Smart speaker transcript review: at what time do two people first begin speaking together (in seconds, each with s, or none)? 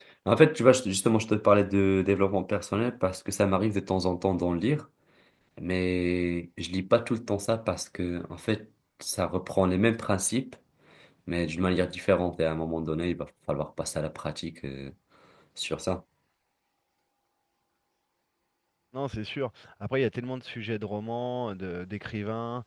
none